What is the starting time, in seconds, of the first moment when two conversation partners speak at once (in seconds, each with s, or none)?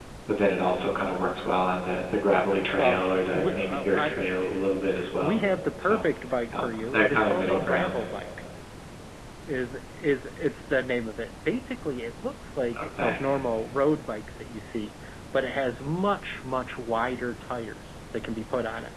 2.8 s